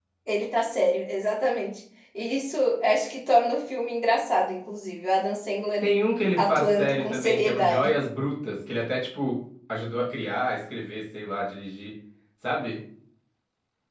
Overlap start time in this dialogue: 6 s

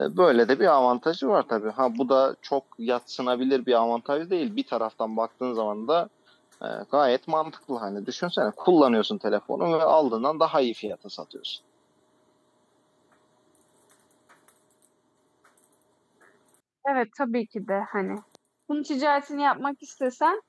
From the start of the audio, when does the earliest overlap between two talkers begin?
none

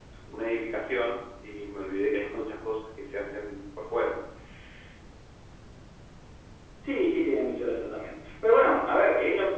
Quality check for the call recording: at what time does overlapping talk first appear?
none

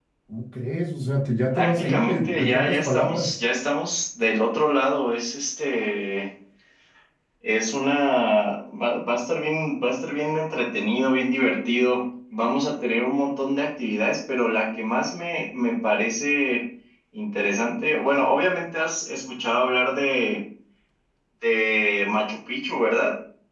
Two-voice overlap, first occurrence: 2 s

